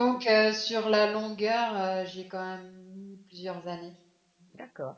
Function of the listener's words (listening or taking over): taking over